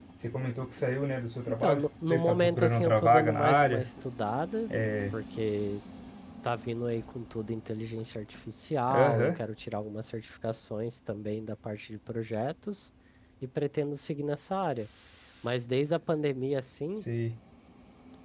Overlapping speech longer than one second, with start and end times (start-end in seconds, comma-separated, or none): 1.6-3.9